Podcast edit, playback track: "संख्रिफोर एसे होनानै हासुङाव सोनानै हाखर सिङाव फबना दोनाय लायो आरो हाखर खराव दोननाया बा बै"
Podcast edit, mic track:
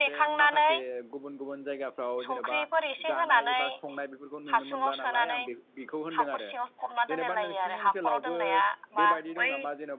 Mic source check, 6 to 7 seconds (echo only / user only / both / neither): both